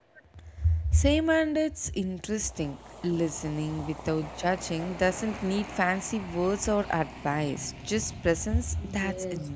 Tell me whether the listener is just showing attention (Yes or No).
No